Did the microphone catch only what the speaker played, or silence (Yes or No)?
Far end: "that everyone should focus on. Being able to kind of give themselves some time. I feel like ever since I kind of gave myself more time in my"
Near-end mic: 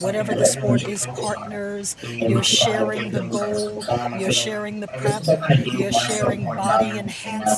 No